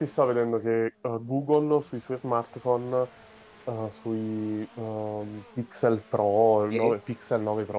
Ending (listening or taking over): listening